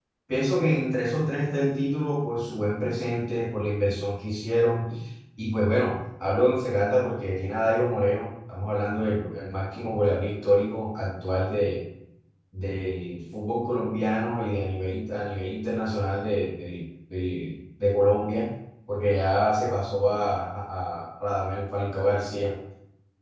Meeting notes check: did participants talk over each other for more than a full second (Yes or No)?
No